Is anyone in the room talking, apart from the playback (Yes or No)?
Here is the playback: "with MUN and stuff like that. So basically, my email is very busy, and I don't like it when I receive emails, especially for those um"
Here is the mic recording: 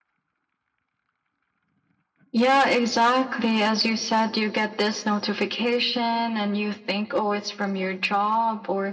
Yes